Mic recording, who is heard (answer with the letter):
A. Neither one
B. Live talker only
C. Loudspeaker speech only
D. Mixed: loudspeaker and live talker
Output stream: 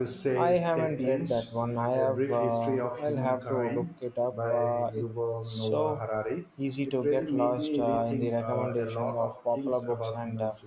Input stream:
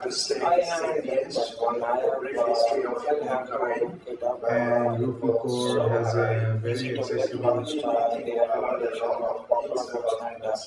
D